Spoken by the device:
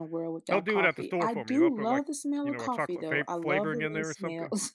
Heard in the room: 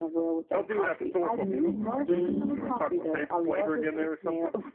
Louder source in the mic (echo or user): user